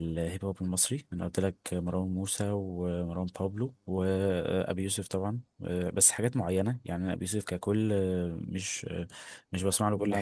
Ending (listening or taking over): taking over